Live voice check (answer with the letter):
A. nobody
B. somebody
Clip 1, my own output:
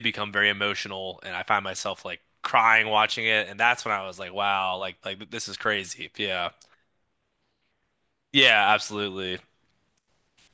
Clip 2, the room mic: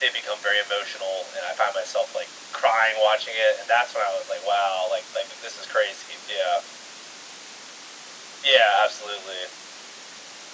A